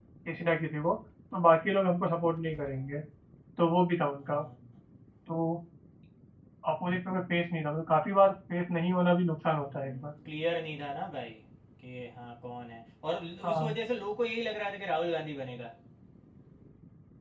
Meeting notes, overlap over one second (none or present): none